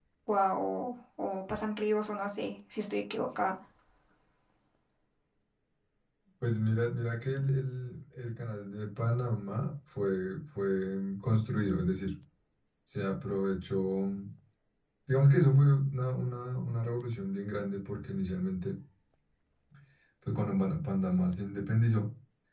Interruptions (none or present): none